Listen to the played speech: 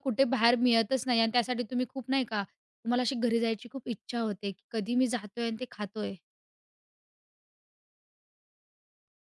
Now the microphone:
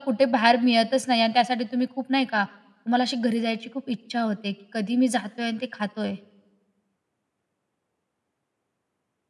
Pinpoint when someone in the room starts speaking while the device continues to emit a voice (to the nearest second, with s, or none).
none